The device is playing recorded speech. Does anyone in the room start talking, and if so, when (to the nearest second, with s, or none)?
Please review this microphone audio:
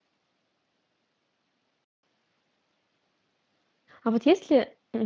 4 s